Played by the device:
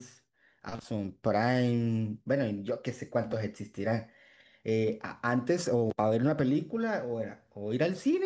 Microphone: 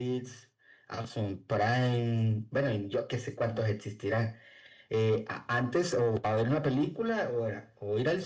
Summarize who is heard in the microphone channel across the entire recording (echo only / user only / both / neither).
echo only